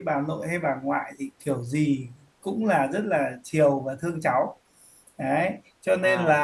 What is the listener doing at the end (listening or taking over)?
listening